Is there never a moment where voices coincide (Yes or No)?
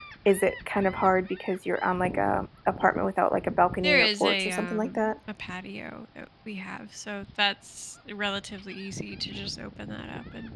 No